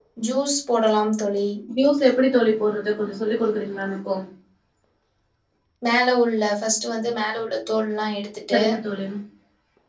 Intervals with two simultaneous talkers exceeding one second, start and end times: none

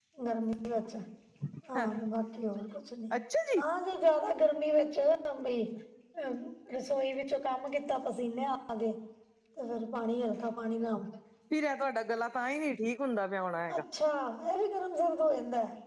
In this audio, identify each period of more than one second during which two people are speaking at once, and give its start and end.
none

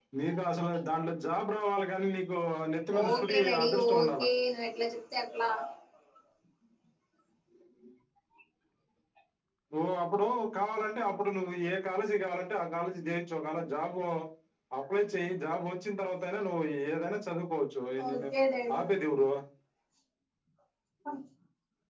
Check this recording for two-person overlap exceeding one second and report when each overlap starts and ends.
3.0-4.3

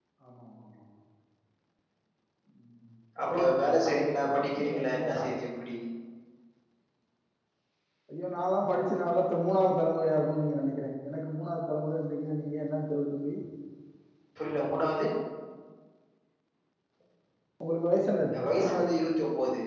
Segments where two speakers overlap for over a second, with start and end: 3.4-5.2

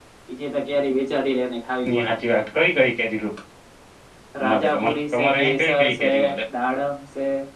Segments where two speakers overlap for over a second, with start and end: 4.5-6.1

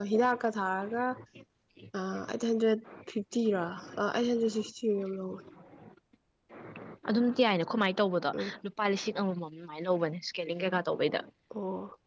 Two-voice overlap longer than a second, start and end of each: none

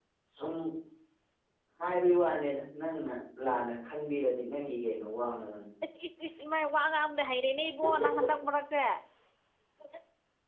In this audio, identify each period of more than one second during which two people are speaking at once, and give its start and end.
none

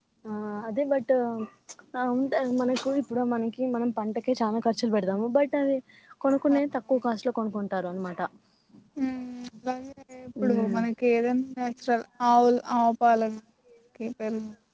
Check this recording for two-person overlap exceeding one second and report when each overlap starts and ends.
none

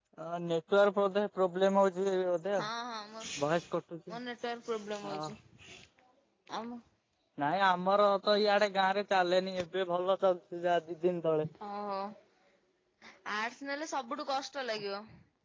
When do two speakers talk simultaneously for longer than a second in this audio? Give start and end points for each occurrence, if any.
none

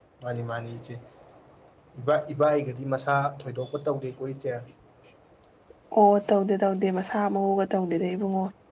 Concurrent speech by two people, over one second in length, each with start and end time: none

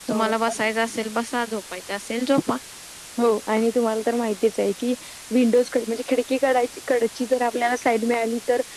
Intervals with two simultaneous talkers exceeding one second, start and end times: none

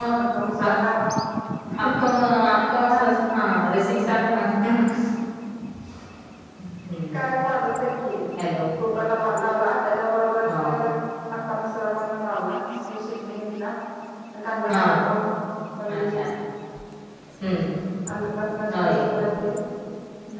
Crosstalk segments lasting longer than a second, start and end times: none

